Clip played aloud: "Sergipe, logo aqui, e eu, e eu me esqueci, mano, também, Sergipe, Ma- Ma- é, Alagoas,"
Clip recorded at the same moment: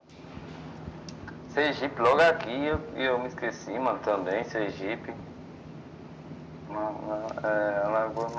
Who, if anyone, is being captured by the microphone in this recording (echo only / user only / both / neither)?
echo only